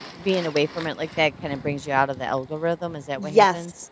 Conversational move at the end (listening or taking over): taking over